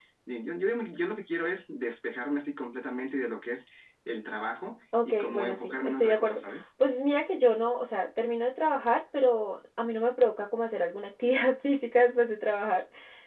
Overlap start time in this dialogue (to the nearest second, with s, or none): 5 s